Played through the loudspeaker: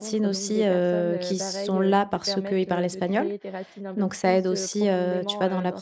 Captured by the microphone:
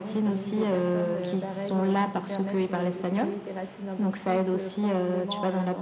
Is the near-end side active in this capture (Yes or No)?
No